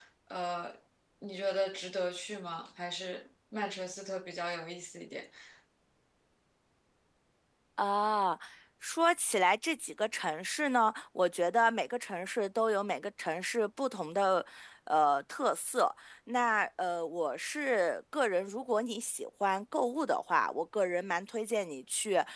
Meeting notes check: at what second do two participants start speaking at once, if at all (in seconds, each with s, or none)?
none